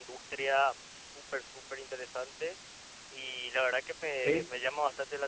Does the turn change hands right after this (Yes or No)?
No